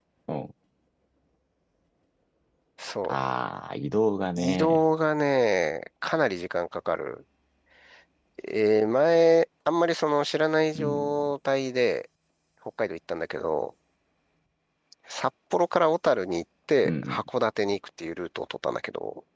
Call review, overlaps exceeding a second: none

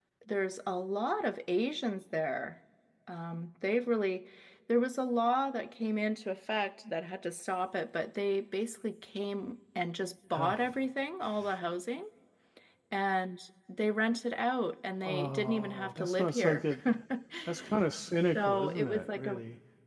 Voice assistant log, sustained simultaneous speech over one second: present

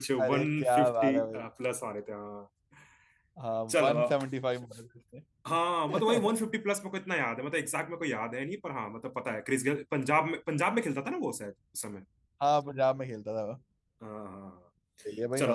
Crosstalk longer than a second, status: present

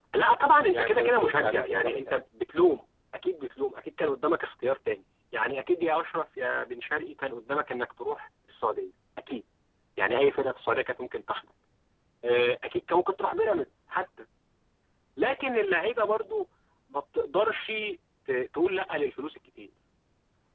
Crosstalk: present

